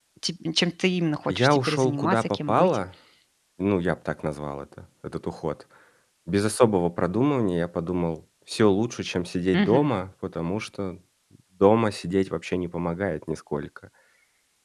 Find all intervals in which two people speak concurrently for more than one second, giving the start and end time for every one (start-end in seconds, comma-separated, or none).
1.3-2.8